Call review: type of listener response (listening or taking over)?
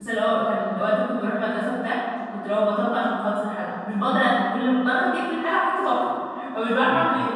taking over